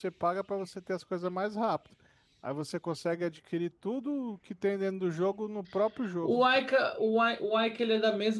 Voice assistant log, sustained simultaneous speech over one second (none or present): none